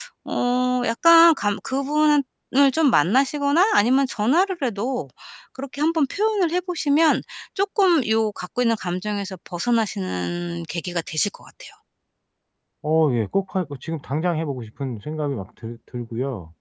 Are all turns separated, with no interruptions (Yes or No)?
Yes